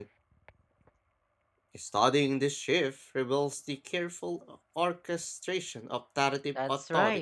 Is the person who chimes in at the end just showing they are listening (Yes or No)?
No